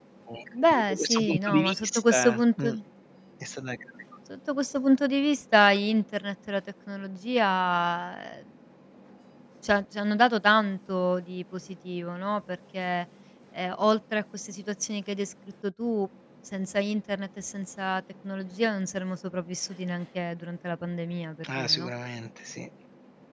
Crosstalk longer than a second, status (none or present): present